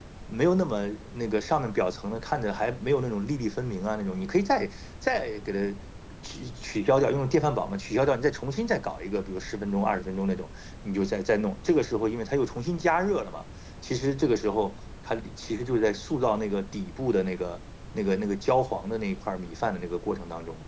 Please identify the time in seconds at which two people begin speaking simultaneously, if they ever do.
none

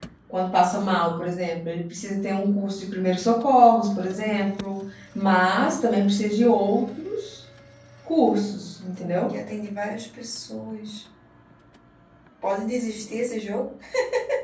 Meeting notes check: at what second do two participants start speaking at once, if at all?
none

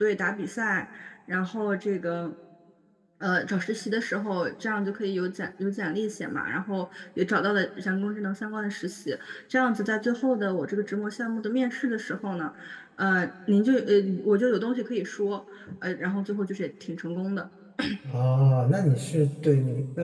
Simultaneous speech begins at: none

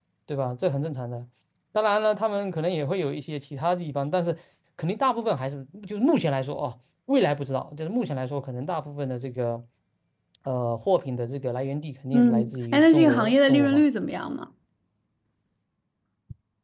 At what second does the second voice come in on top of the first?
12 s

